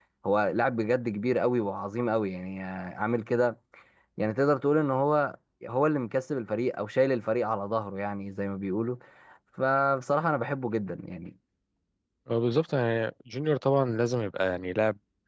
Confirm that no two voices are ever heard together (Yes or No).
Yes